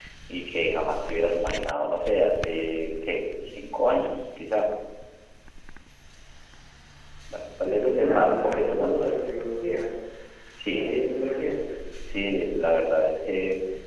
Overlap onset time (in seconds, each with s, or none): 7.6 s